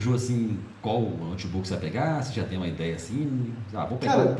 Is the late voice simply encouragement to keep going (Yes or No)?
Yes